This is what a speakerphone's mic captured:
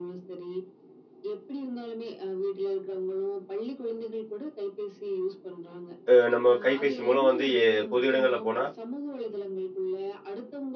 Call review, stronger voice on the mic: user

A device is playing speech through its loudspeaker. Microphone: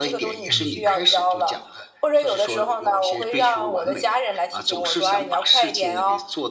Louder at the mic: echo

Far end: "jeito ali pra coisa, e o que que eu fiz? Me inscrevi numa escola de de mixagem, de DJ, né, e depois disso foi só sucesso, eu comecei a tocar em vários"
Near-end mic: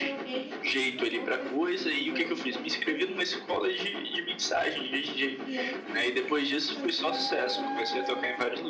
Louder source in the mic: echo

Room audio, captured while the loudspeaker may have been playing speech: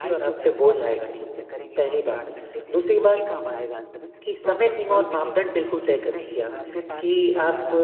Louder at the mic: user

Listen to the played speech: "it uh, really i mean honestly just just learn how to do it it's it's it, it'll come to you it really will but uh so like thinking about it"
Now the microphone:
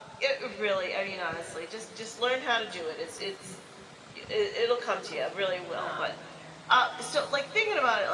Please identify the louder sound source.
echo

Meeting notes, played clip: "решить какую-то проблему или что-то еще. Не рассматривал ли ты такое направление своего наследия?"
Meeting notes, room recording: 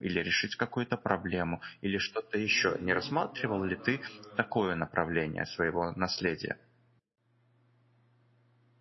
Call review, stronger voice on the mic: echo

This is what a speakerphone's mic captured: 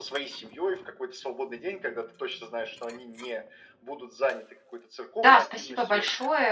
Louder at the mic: user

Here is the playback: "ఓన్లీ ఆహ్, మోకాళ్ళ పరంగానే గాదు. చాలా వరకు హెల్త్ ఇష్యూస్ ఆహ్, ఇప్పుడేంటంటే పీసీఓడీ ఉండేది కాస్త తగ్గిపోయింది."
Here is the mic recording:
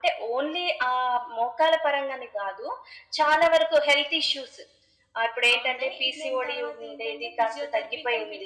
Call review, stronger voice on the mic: echo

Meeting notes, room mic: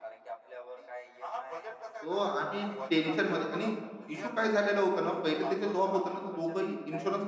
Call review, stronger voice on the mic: user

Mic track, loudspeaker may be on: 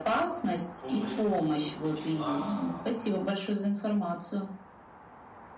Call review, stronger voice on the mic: echo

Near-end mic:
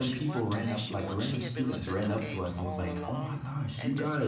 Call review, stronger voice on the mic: user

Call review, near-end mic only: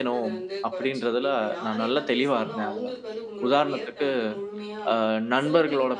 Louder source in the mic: user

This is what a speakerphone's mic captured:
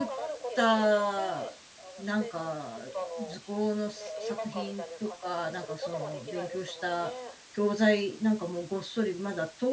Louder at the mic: user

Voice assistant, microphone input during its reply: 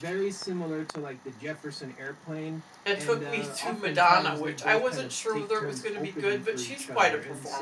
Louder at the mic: user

